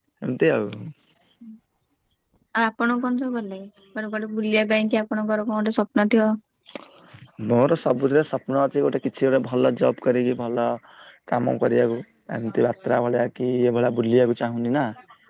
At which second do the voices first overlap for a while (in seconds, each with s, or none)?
none